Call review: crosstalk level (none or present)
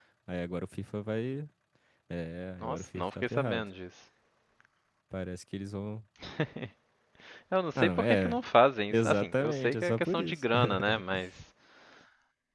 present